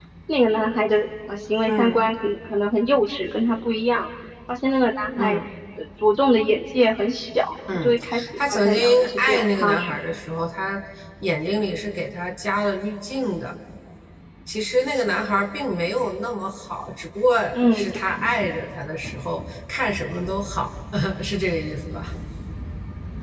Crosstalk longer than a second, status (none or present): present